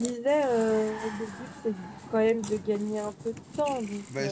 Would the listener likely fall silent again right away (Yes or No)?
No